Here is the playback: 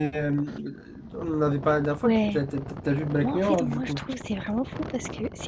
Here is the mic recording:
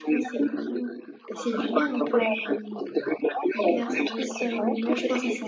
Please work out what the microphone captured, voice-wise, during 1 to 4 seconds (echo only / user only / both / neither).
both